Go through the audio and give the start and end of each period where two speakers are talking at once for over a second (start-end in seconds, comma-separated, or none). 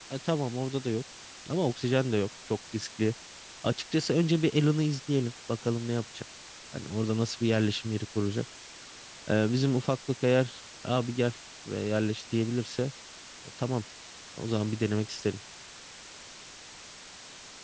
none